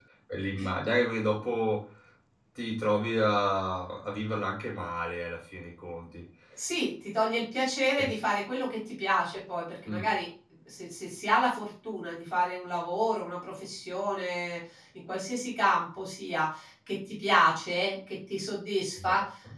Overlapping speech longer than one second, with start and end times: none

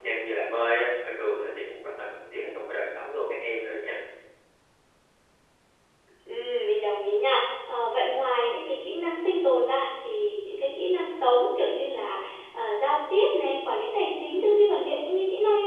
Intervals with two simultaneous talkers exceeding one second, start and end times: none

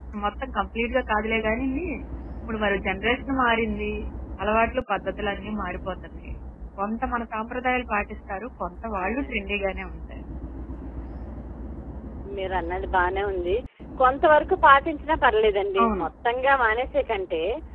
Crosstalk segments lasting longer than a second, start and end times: none

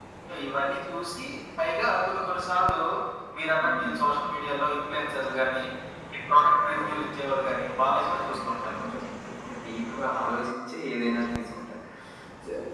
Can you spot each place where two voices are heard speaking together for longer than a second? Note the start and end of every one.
6.8-8.8

